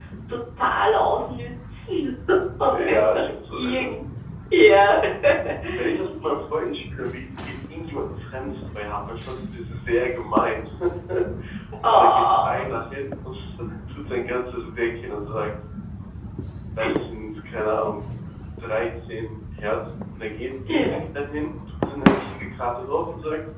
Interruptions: present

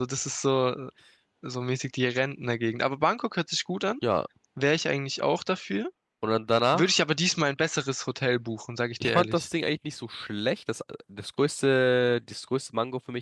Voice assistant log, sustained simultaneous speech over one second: none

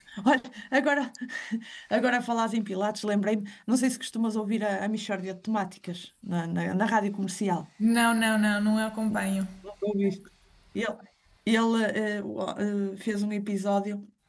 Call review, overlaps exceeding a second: none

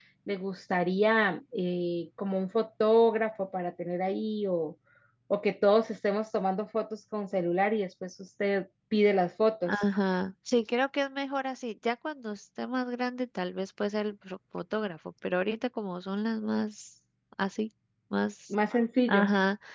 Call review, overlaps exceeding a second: none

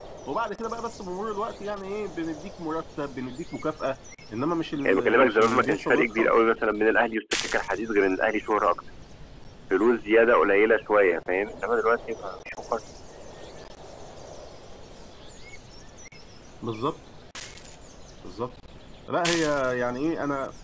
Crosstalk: present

